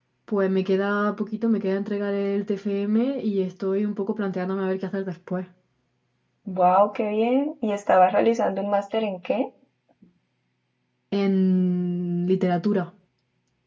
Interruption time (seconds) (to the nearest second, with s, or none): none